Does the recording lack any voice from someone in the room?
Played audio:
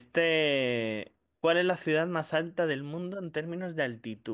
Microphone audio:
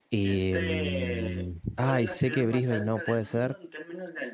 No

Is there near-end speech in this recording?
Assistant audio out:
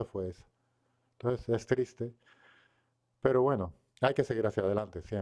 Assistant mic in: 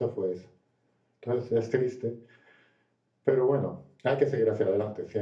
No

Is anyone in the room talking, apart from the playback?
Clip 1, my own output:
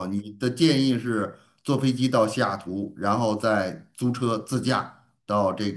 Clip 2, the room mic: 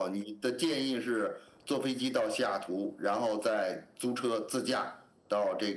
No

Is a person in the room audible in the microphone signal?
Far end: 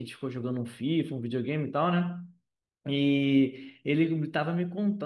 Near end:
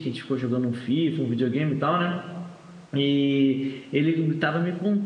No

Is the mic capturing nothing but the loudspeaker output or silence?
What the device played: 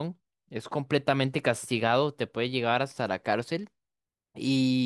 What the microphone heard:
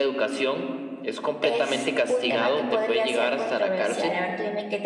No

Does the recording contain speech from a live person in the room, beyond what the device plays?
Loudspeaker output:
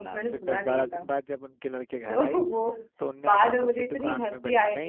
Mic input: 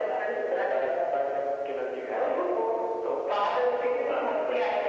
No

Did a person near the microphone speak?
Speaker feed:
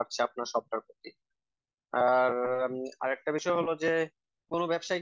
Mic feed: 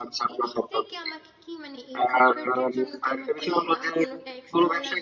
Yes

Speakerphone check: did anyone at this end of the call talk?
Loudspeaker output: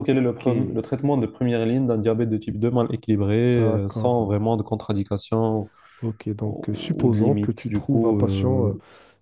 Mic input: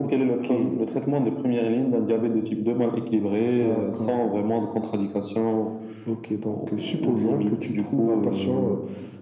No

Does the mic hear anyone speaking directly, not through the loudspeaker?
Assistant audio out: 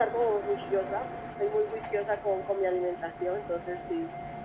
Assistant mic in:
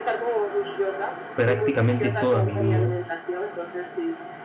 Yes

